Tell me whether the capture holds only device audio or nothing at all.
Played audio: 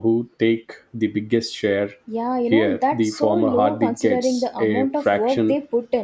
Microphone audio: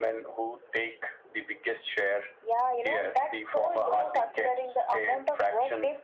Yes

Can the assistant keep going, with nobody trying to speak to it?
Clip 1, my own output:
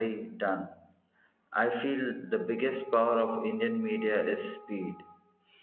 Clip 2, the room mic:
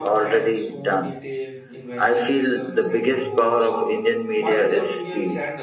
No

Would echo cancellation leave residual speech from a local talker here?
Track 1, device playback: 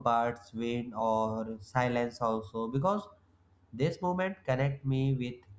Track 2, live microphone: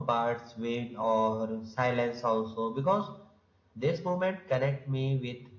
No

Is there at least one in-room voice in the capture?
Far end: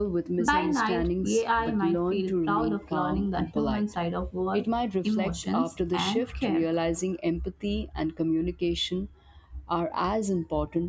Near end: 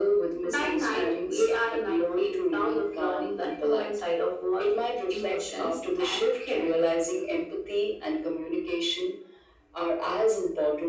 No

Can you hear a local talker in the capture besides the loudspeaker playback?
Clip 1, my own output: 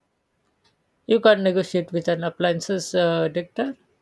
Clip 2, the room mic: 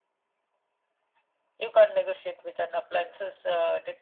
No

